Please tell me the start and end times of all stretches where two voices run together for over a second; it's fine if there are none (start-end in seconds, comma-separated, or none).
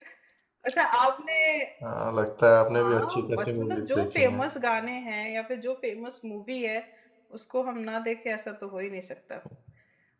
2.8-4.4